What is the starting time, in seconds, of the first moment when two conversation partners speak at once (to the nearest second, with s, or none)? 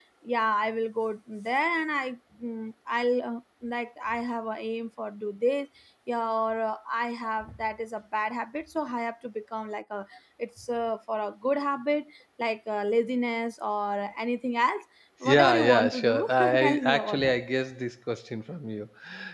15 s